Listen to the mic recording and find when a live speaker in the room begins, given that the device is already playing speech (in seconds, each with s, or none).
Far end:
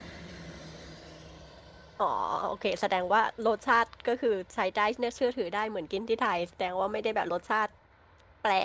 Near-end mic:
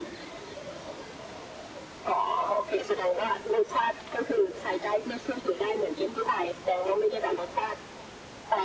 none